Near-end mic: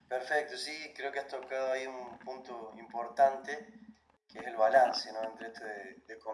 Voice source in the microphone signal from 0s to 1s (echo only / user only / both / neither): echo only